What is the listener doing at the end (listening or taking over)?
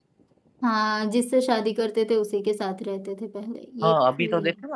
taking over